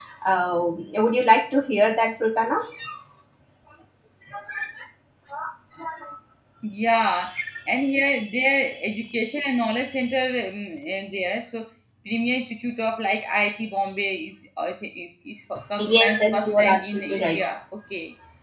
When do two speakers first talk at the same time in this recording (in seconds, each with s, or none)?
15.8 s